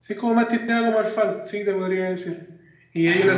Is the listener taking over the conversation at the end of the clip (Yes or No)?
No